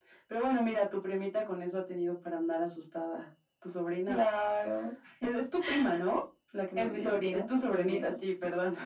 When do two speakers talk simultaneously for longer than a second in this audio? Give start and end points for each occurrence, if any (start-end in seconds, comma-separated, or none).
6.8-8.1